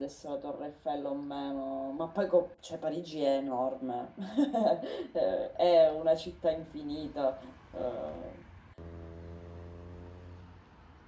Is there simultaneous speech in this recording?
No

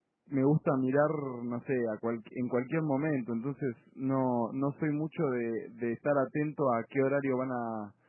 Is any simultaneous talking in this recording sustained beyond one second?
No

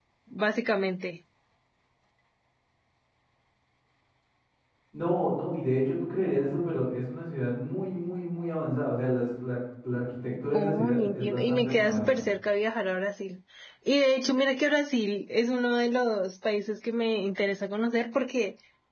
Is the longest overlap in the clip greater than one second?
Yes, from 10.5 s

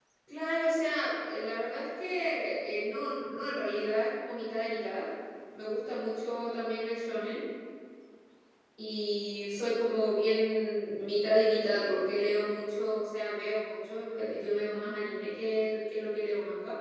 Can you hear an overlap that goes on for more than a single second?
No

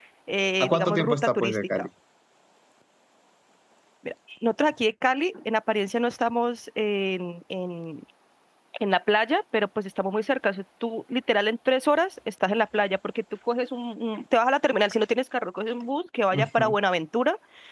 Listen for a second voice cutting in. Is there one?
Yes, from 0.6 s

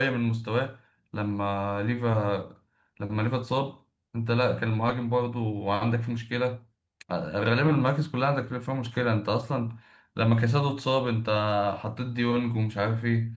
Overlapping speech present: No

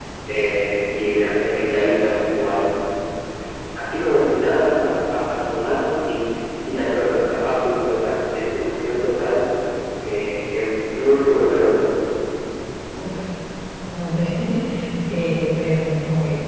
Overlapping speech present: No

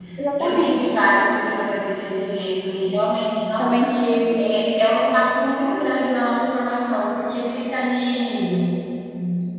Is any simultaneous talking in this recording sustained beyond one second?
No

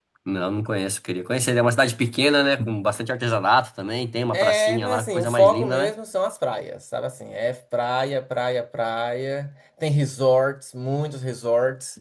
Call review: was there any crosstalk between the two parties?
Yes, from 4.3 s

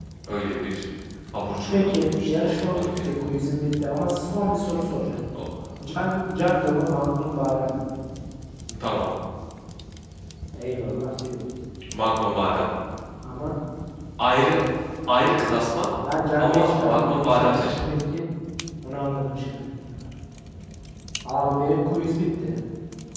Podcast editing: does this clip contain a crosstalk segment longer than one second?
Yes, from 1.7 s

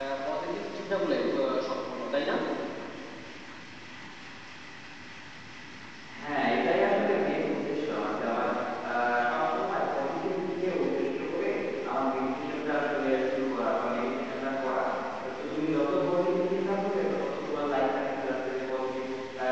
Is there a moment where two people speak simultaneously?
No

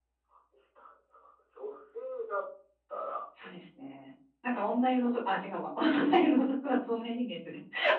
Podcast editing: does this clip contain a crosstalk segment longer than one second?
No

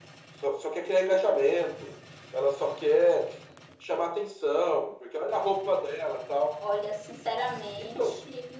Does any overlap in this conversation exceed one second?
No

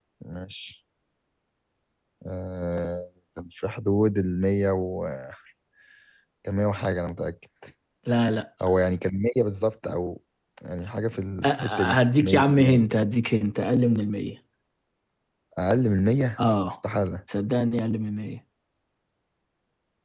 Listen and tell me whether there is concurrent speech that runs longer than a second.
Yes, from 11.4 s

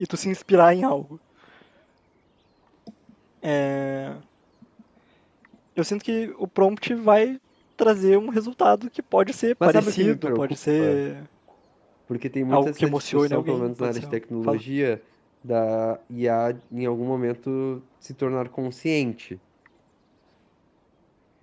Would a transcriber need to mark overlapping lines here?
Yes, from 9.7 s

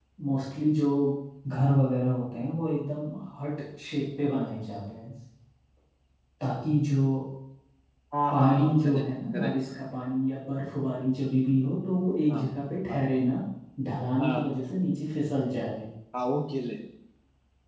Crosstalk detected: Yes, from 8.3 s

